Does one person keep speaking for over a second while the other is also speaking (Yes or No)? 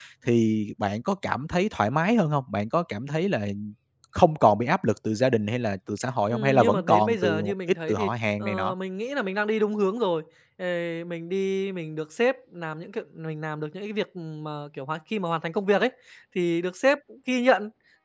Yes